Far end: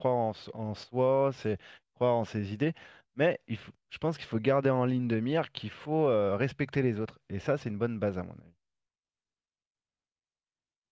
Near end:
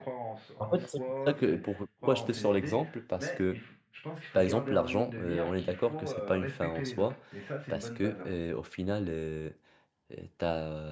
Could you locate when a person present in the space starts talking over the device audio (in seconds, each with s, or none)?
0.6 s